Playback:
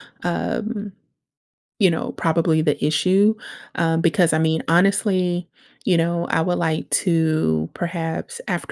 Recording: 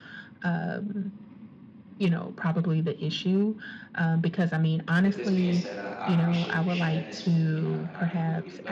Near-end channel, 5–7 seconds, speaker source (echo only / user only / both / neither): both